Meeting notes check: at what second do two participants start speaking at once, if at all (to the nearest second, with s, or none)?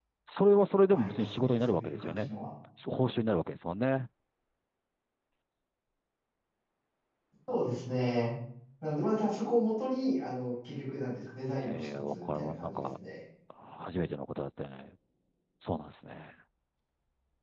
1 s